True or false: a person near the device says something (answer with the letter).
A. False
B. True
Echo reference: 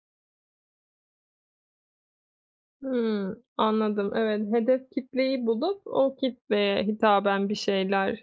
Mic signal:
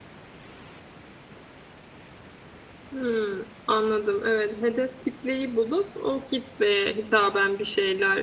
A